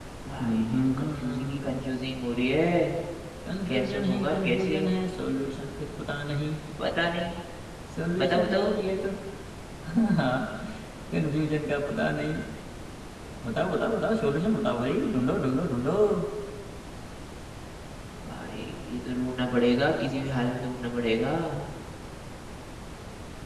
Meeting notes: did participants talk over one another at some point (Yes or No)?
Yes